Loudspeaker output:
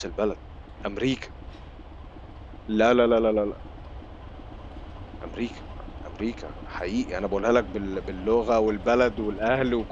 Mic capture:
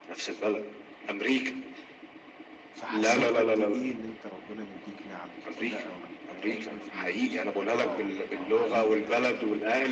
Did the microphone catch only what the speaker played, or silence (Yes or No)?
No